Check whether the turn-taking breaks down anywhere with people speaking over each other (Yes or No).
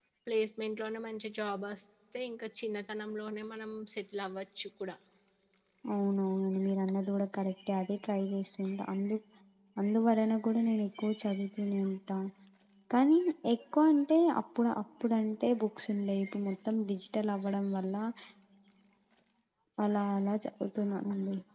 No